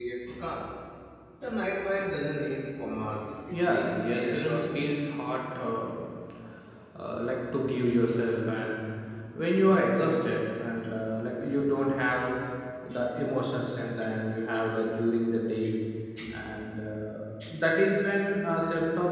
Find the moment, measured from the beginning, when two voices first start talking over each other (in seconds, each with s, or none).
3.5 s